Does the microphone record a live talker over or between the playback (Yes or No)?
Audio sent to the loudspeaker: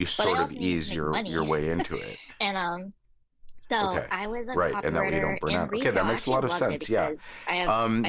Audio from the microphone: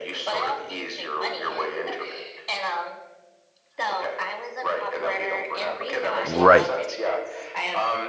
Yes